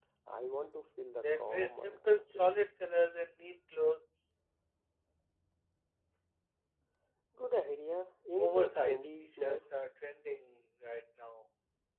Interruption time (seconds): 1.2 s

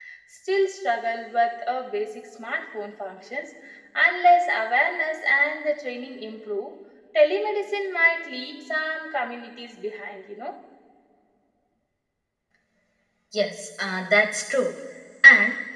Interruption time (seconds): none

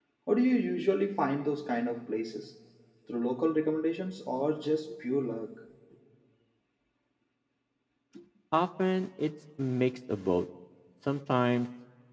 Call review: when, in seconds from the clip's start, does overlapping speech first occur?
none

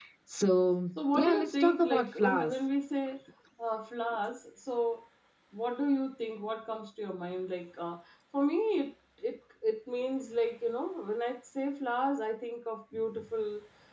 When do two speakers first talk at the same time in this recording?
1.0 s

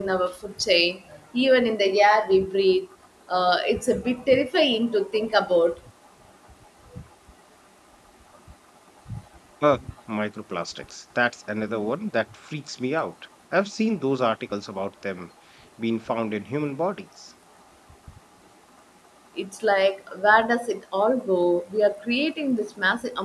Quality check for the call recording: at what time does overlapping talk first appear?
none

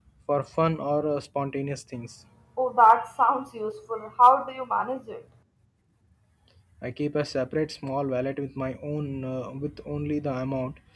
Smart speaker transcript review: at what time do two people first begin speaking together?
none

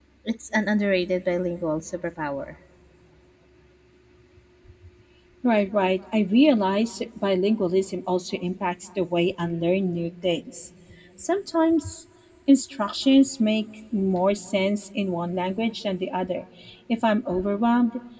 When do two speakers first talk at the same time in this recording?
none

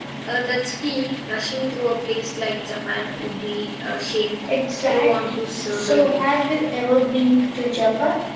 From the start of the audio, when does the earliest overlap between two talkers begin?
4.9 s

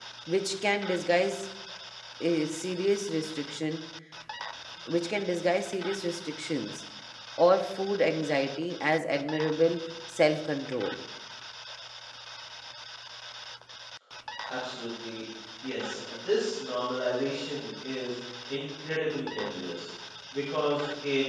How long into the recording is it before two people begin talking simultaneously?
none

